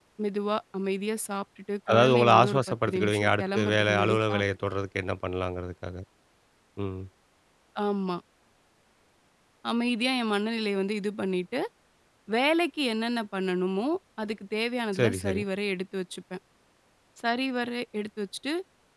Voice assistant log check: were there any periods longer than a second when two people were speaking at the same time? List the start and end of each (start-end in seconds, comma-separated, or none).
1.9-4.4